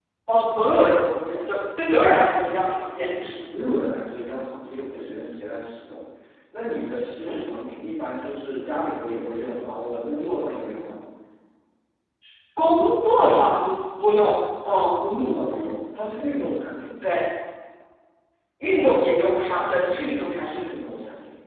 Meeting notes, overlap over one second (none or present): none